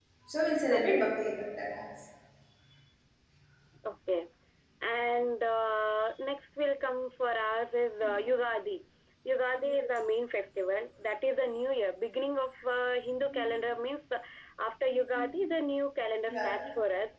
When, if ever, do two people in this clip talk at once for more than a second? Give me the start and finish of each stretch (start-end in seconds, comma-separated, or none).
none